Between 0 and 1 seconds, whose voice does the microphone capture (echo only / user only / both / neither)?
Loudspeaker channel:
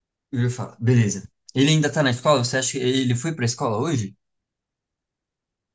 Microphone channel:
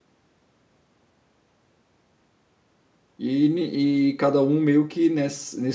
neither